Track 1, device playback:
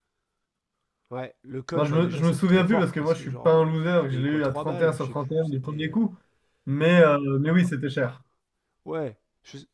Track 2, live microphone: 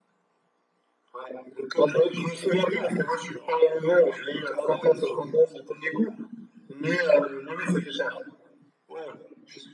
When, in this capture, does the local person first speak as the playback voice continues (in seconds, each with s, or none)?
none